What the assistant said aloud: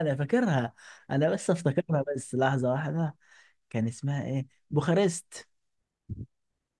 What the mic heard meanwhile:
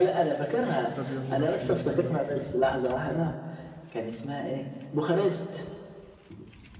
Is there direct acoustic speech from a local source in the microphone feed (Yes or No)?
Yes